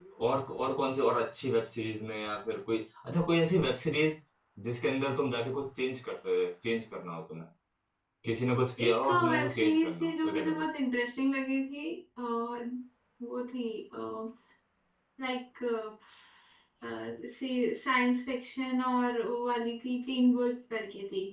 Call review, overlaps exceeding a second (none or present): present